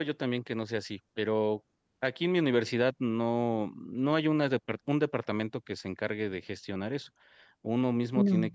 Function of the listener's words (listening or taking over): listening